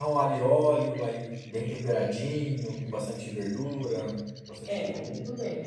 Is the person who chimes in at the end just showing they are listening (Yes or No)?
No